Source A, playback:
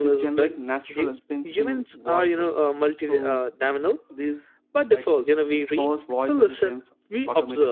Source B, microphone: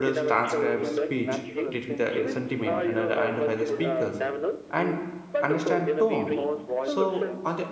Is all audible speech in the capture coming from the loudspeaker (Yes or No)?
No